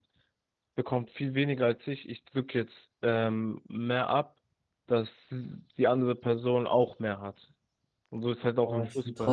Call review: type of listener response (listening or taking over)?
taking over